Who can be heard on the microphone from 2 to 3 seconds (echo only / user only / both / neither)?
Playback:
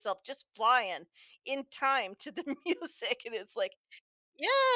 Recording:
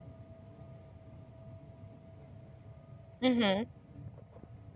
neither